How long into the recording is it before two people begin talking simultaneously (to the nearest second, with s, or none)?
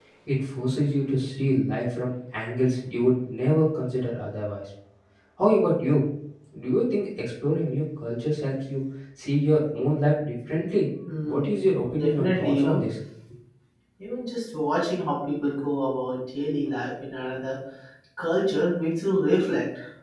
11 s